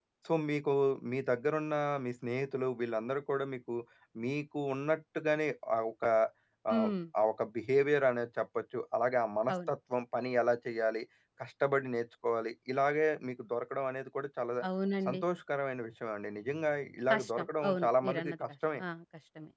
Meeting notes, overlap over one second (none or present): present